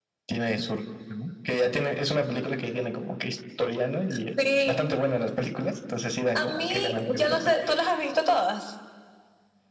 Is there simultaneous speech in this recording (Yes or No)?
Yes